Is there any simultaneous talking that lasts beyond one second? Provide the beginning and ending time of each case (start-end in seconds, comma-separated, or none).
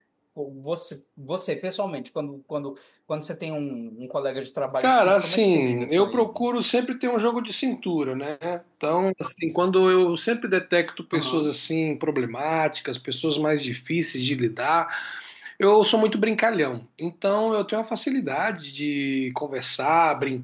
4.8-6.4